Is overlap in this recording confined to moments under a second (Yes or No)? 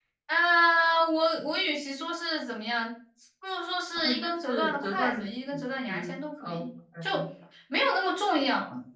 No